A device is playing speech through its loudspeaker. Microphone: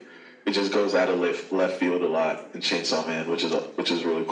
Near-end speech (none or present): none